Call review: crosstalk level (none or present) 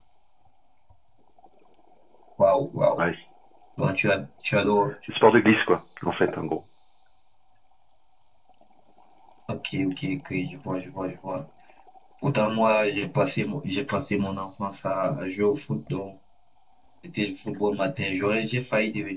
none